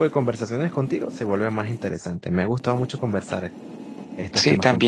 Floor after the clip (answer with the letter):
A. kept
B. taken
B